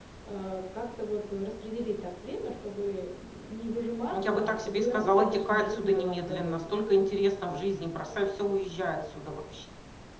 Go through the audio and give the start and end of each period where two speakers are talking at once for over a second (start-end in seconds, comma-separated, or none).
4.2-6.8